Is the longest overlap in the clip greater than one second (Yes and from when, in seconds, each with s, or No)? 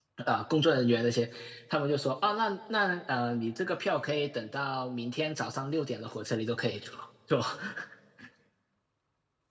No